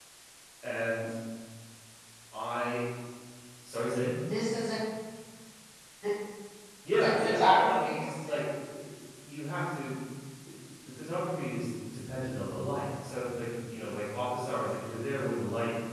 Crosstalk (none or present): present